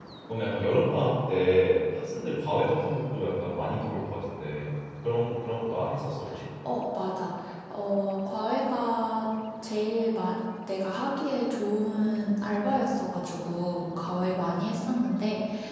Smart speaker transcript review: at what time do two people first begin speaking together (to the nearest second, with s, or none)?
none